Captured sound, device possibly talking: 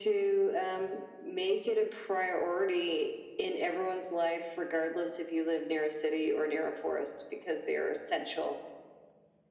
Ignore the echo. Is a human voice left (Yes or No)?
No